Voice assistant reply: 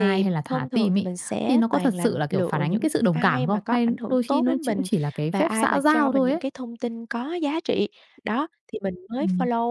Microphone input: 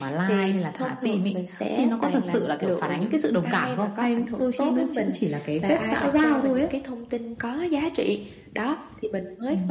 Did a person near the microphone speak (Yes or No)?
No